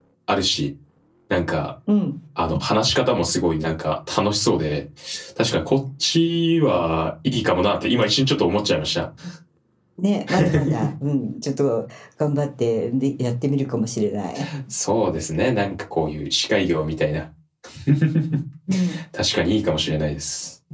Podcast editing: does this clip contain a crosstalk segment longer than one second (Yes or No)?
No